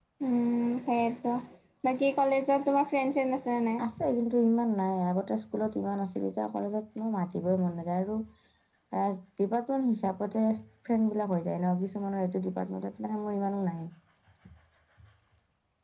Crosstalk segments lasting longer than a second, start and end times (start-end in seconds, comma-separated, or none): none